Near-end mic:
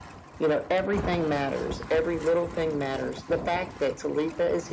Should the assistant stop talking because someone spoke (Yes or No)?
No